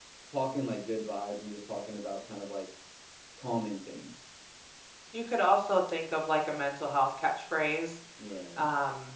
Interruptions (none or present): none